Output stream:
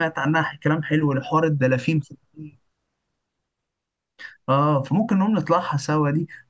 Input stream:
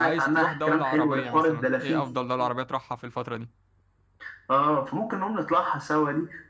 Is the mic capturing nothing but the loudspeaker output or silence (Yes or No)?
No